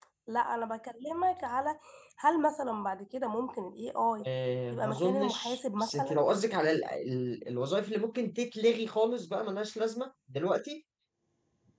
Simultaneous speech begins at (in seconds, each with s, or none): 4.7 s